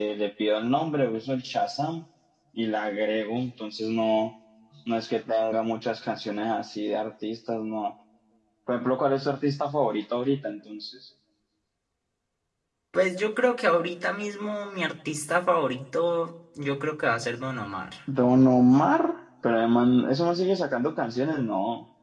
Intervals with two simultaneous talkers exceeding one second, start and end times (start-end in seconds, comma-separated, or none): none